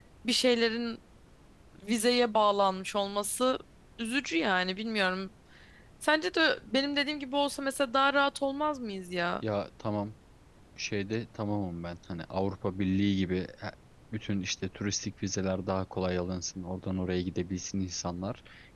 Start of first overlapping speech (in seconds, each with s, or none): none